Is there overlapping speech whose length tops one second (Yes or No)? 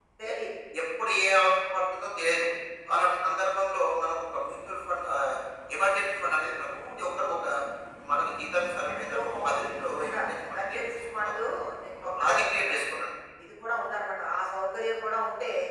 Yes